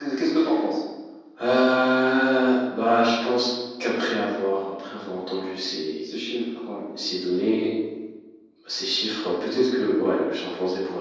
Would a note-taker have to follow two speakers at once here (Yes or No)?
No